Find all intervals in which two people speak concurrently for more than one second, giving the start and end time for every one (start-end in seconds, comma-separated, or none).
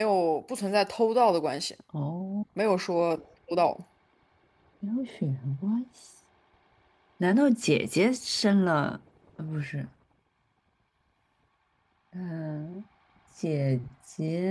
none